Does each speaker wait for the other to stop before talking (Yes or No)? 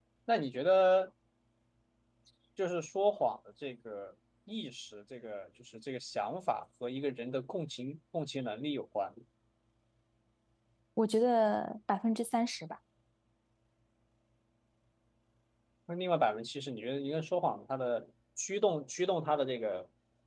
Yes